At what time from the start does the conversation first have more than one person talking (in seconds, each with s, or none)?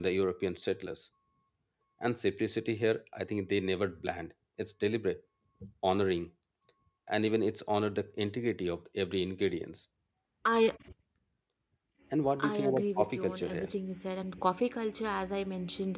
12.4 s